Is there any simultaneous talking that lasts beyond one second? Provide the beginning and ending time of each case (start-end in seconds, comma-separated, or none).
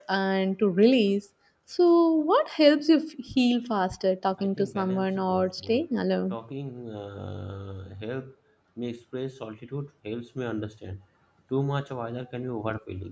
4.4-5.8